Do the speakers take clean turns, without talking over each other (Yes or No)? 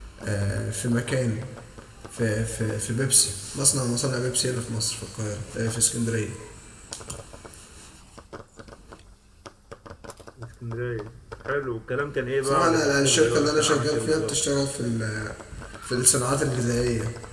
No